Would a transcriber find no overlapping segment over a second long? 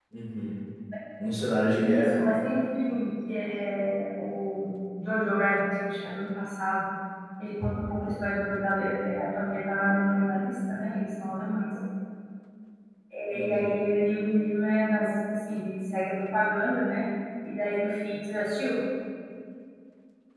Yes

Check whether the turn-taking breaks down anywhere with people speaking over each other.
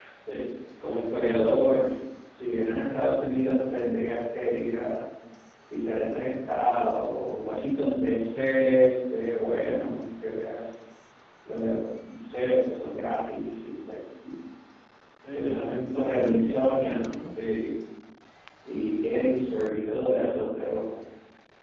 Yes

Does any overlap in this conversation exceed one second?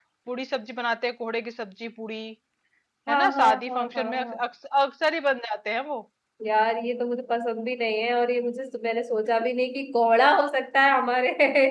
Yes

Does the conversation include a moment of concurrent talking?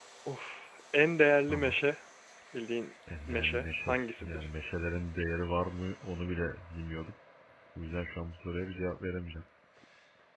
Yes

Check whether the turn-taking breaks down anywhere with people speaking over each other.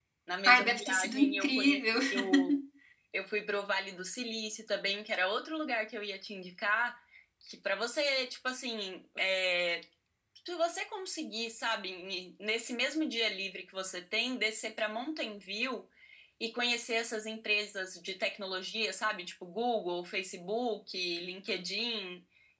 Yes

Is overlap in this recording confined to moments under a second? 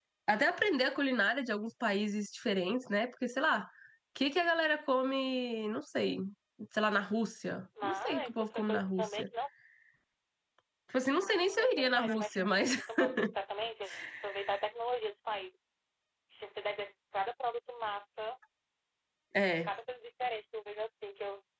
No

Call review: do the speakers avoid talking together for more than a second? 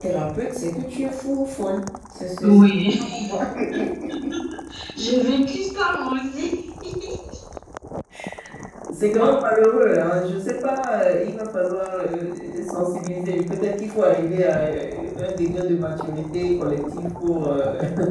Yes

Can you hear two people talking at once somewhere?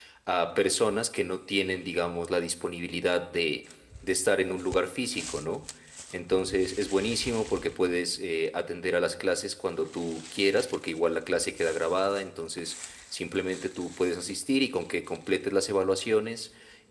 No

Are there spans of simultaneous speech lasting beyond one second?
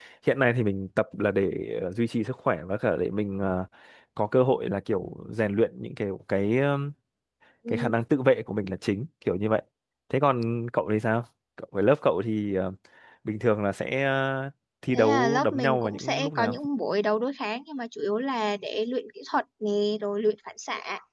Yes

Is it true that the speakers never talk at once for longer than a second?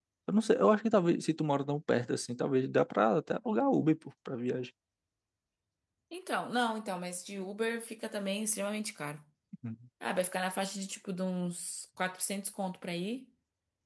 Yes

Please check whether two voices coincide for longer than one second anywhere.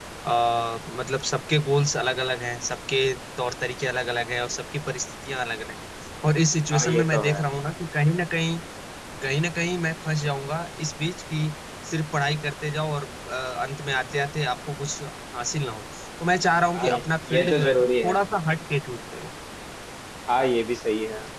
Yes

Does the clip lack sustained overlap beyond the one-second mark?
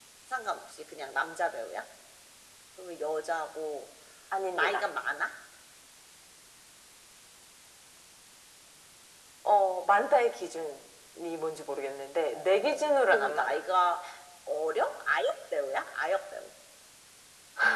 No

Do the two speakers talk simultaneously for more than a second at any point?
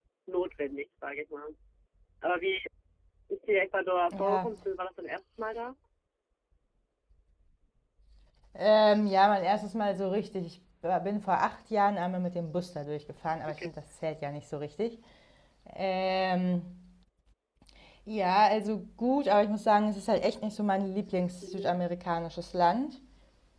No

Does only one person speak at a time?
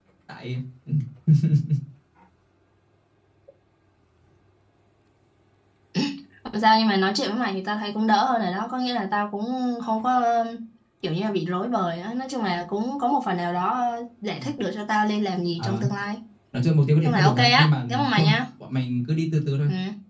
No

